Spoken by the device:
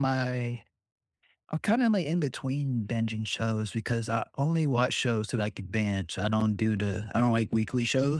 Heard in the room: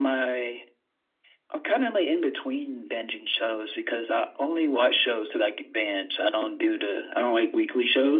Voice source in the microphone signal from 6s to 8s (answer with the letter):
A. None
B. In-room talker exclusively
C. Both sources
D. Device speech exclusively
D